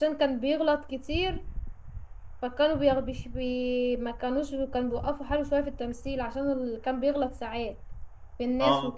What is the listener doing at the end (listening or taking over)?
taking over